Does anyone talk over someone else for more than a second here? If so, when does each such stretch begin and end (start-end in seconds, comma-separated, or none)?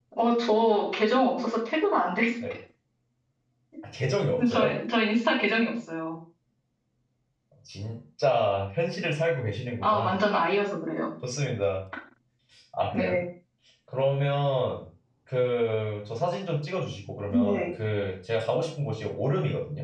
none